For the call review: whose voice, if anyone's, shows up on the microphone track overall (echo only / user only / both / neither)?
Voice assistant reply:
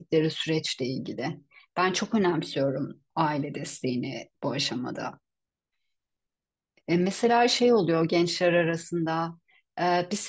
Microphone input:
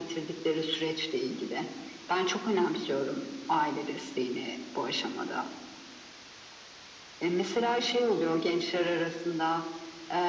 echo only